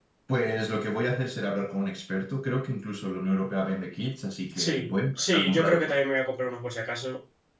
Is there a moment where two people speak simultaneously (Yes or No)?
Yes